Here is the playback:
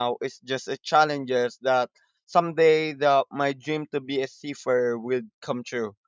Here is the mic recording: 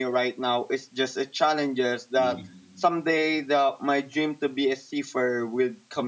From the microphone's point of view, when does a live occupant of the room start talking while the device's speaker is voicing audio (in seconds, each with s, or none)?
2.2 s